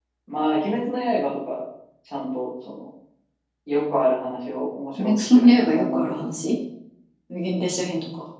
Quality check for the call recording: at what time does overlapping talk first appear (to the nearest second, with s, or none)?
5 s